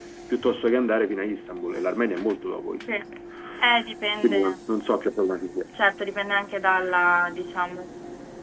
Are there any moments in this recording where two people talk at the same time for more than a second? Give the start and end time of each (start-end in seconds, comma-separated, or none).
none